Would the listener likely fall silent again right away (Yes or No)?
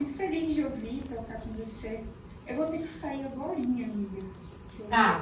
Yes